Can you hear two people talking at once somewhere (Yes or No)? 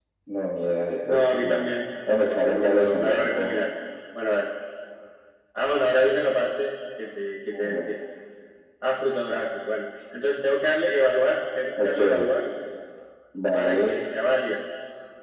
Yes